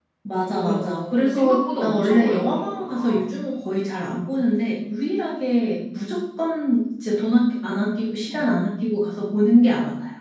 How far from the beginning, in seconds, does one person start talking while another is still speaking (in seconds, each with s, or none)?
0.5 s